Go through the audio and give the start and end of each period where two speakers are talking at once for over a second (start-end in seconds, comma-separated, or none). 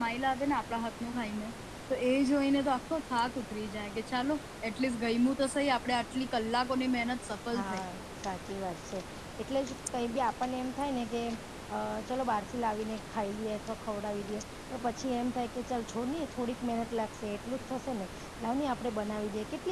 none